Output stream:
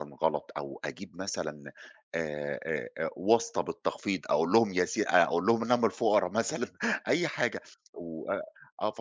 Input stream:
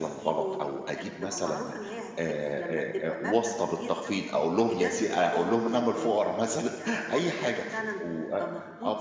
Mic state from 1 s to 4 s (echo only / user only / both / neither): both